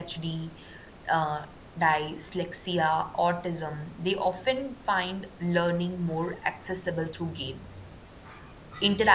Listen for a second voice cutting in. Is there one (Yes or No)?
No